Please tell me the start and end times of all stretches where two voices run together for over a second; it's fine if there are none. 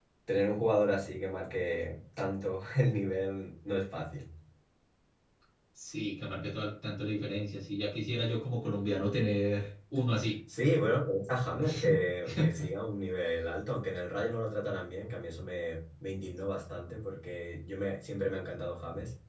none

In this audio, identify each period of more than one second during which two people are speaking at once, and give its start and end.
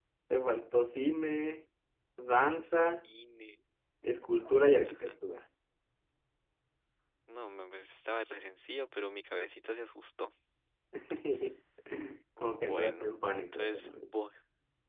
12.4-14.1

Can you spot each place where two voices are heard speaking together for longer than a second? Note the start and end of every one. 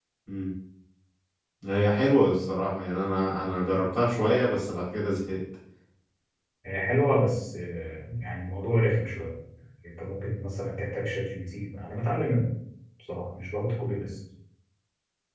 none

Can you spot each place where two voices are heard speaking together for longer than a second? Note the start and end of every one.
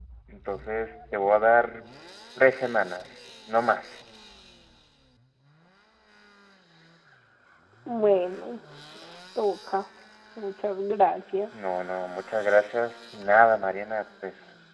none

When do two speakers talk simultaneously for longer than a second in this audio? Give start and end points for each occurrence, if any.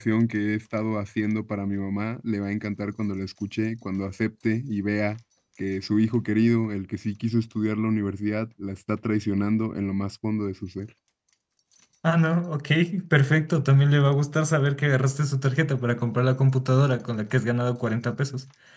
none

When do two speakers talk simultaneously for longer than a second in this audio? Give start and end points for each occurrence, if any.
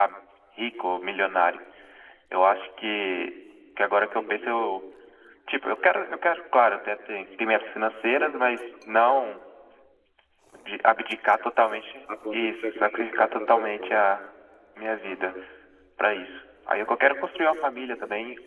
12.3-14.1

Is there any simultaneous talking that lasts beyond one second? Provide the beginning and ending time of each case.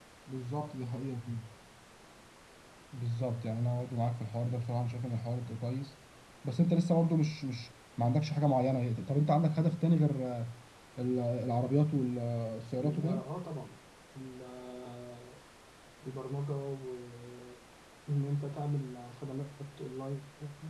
none

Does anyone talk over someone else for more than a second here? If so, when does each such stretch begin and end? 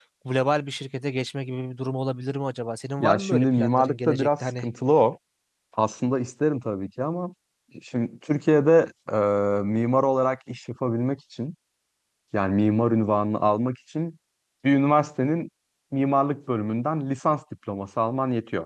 3.0-4.6

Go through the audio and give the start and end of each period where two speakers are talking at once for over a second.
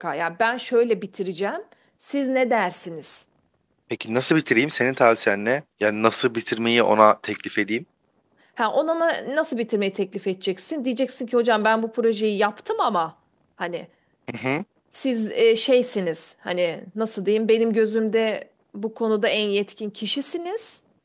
none

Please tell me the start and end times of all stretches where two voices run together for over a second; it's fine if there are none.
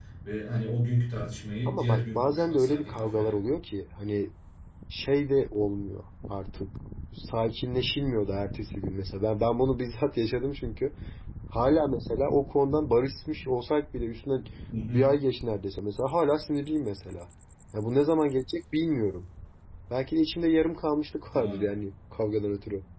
1.7-3.4

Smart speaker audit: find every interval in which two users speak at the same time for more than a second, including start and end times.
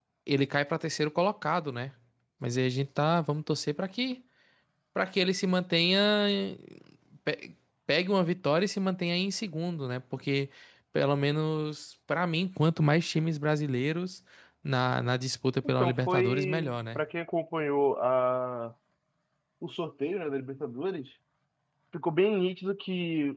15.8-17.0

